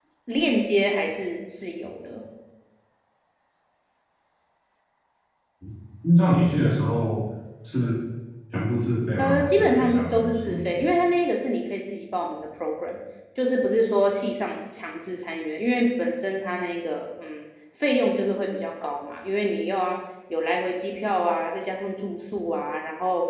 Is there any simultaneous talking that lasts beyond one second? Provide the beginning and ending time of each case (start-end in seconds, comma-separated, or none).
9.2-10.8